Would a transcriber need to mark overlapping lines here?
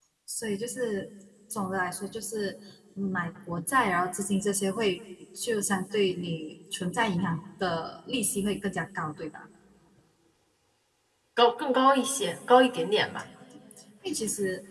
No

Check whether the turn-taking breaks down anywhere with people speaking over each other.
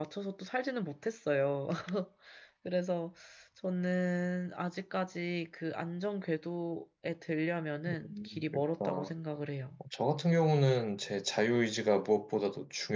Yes, from 7.9 s

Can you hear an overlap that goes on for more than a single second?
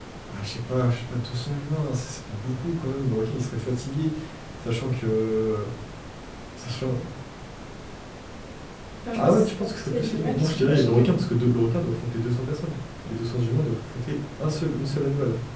Yes, from 9.2 s

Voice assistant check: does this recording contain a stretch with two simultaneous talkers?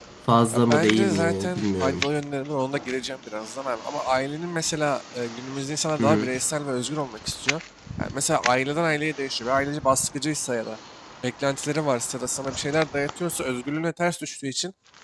Yes, from 0.5 s

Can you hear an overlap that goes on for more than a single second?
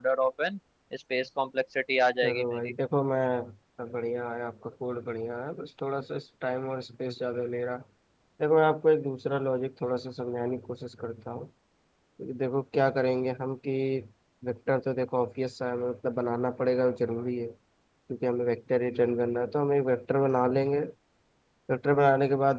No

